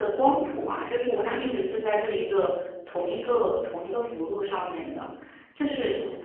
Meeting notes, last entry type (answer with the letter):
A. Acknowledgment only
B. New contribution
A